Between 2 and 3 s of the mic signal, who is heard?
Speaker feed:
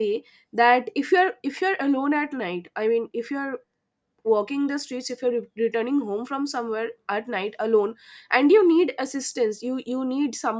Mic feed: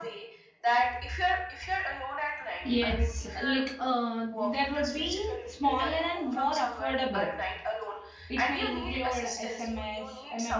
both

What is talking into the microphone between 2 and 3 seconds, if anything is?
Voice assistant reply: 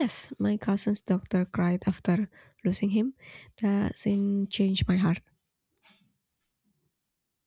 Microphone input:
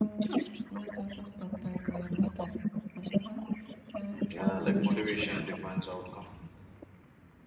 echo only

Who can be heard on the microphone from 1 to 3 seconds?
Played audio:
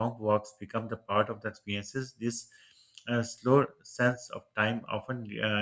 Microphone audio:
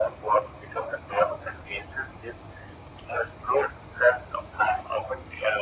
echo only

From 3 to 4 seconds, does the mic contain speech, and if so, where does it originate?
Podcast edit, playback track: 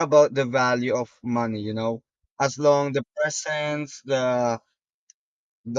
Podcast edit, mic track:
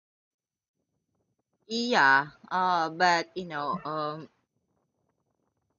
user only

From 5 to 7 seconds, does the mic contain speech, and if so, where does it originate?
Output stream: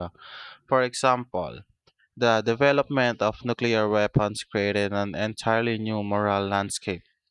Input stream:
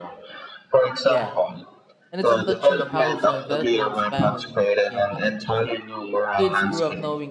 both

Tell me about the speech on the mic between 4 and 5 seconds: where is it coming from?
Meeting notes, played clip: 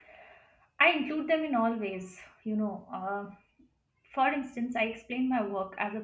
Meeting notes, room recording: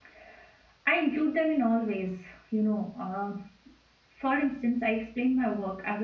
echo only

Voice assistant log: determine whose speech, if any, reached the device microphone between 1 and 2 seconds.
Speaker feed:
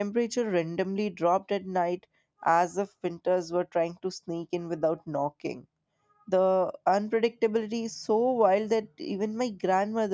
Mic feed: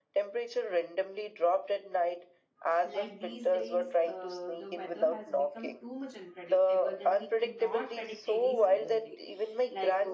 echo only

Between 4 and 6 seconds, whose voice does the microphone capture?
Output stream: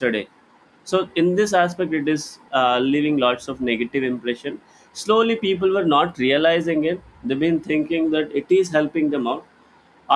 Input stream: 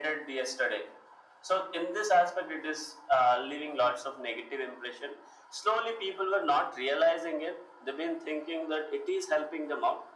echo only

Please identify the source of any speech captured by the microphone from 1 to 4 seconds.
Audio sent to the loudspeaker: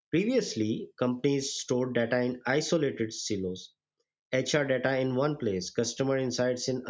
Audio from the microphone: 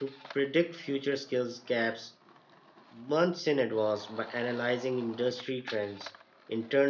user only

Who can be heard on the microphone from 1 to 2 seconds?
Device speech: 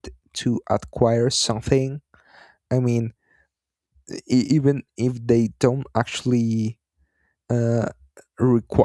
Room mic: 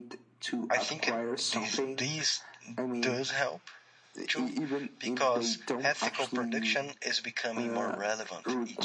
both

